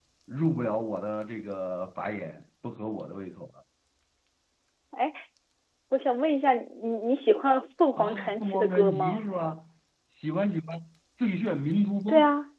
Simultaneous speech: Yes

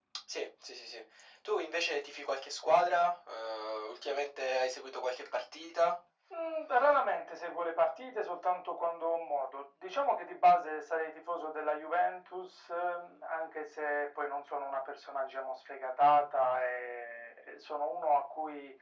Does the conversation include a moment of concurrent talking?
No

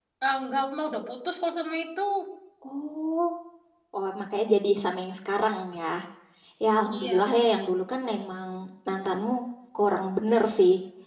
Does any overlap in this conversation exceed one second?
No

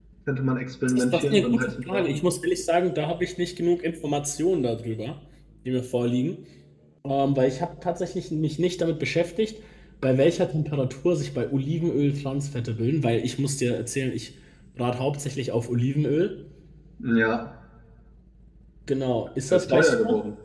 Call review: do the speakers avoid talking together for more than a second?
No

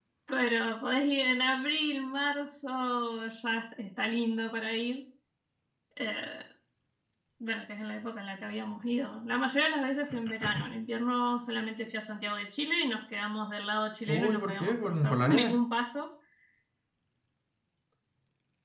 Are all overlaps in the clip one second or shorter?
No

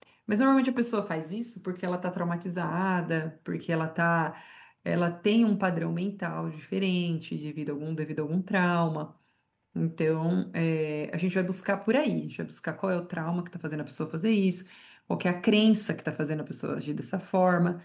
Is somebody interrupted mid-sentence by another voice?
No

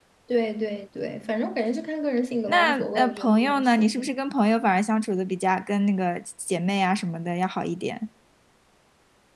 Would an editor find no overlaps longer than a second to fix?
No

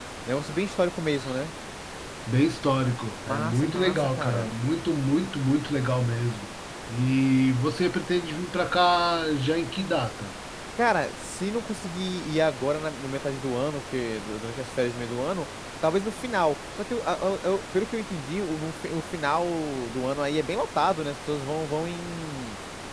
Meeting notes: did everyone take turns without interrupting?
No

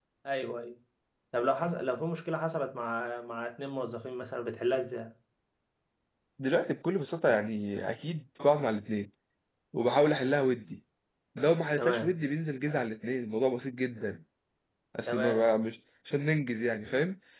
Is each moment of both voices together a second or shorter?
Yes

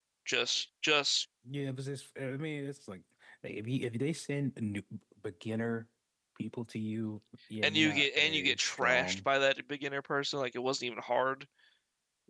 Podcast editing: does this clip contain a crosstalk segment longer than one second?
Yes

